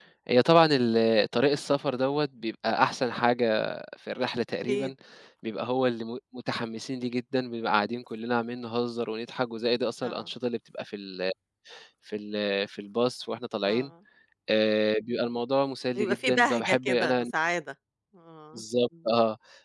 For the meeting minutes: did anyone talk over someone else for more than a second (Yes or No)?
Yes